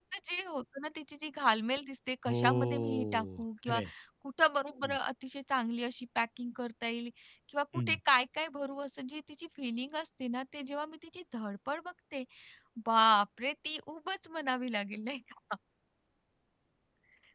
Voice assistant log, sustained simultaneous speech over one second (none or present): present